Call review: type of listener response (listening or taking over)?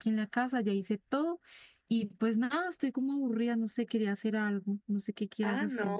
taking over